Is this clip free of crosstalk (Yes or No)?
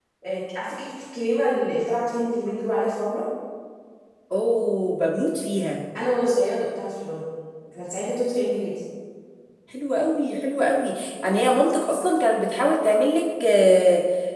Yes